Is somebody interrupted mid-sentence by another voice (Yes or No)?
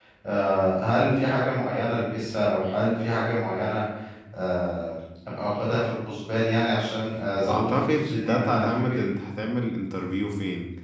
Yes